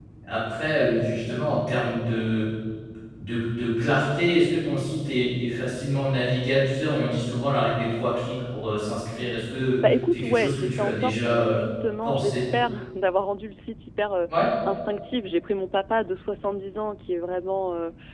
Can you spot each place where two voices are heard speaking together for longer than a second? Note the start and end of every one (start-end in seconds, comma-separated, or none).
9.9-11.6